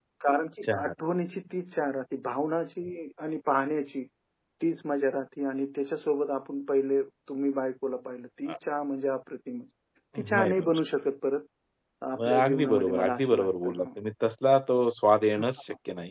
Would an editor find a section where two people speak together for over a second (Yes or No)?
Yes